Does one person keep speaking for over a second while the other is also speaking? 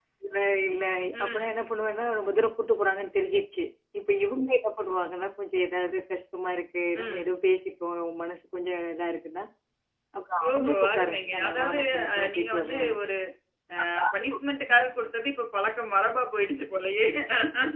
Yes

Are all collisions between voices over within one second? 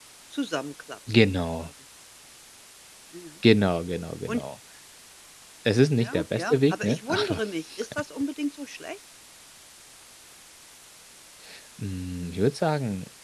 No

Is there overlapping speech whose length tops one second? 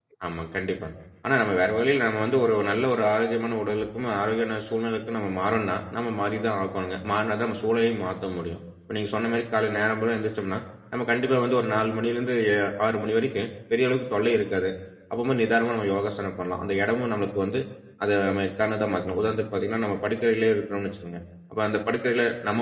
No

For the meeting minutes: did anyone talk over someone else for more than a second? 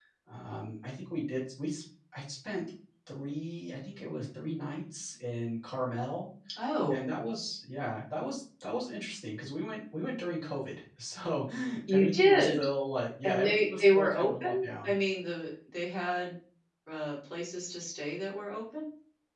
Yes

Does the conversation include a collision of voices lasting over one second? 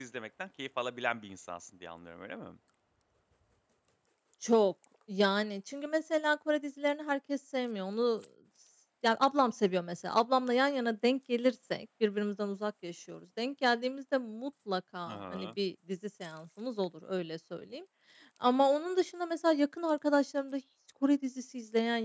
No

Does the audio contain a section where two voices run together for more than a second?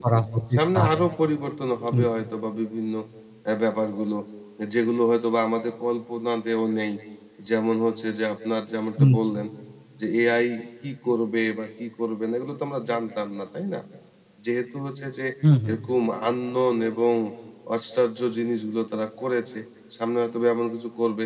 No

